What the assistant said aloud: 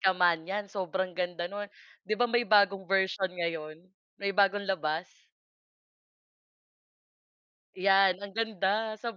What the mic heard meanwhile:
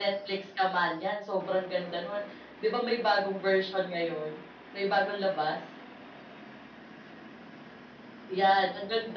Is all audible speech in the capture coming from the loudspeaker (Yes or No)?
Yes